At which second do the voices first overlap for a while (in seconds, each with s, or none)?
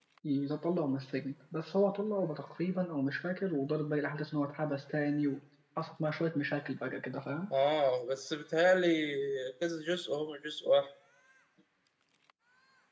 none